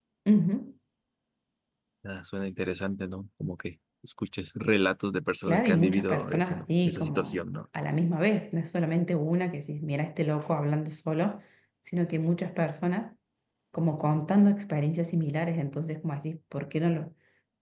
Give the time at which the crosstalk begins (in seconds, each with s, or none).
5.5 s